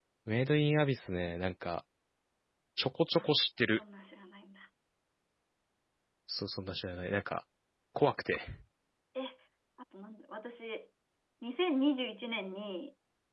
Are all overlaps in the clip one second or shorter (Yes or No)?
Yes